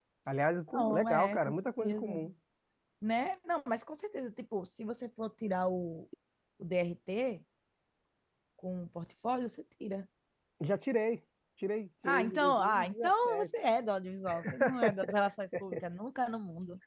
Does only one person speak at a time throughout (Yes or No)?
No